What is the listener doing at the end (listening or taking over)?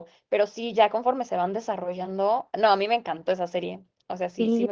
taking over